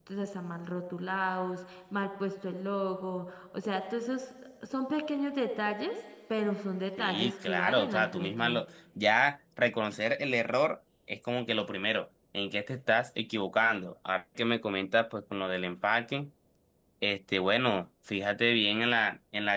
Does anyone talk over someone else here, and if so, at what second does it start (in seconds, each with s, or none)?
7.0 s